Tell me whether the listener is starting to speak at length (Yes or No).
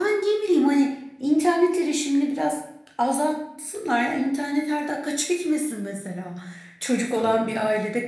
No